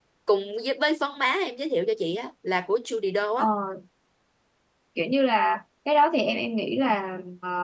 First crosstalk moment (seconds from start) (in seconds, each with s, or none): none